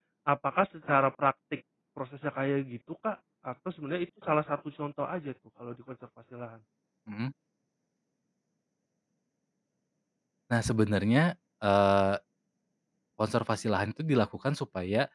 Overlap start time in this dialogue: none

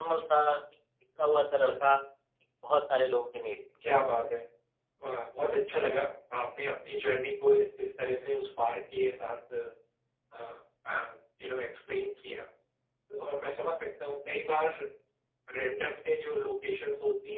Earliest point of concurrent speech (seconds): none

